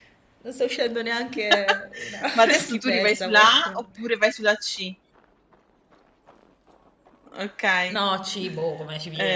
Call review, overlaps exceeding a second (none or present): present